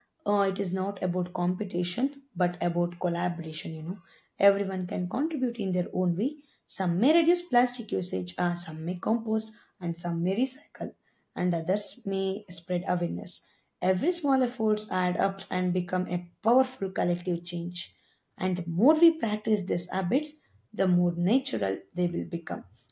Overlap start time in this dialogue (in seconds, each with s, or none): none